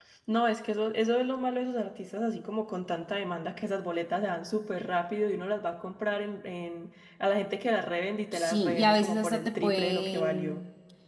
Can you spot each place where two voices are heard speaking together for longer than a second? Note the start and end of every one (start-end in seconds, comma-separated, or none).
8.3-10.6